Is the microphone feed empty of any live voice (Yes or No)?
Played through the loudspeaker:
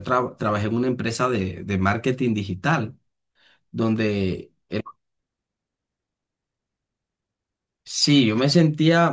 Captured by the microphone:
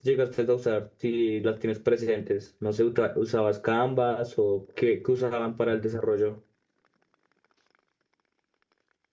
No